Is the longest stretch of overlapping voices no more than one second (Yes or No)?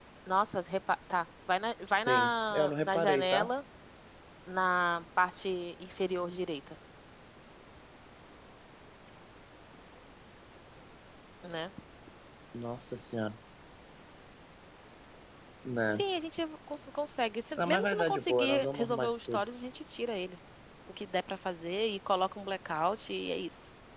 No